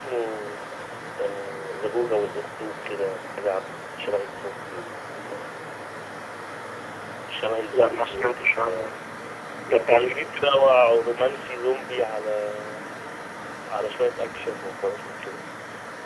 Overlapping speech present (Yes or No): Yes